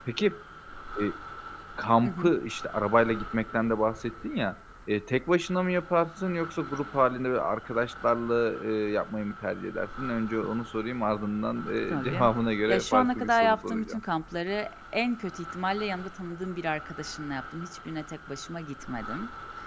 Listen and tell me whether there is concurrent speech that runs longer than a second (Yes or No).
Yes